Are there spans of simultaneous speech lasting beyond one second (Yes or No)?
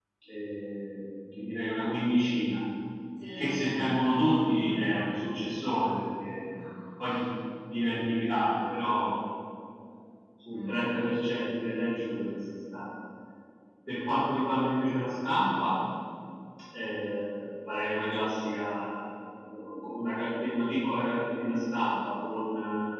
Yes